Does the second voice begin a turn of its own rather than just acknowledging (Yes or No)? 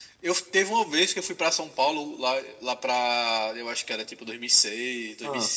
No